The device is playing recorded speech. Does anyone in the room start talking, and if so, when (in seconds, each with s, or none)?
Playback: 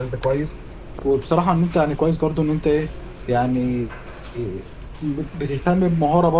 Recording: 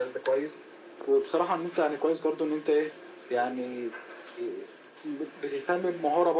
none